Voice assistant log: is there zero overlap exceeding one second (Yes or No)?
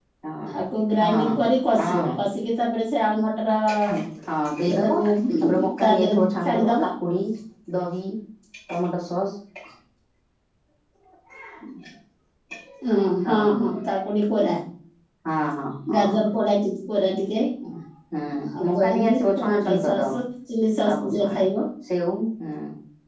No